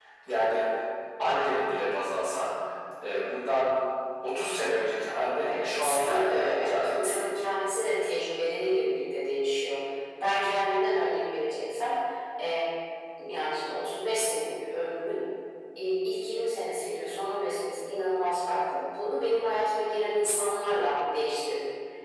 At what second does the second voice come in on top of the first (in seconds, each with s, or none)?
5.5 s